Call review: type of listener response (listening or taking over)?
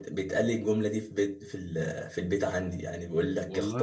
listening